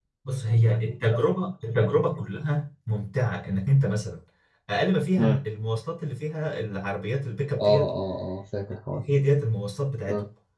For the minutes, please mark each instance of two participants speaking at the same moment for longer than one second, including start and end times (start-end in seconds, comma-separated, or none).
none